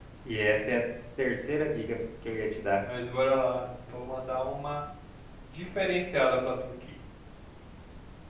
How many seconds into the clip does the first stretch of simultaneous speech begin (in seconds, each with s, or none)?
none